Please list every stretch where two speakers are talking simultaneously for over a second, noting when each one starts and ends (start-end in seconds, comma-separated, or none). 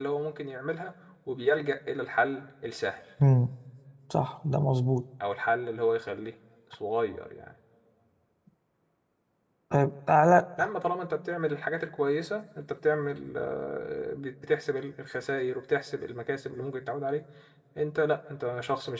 none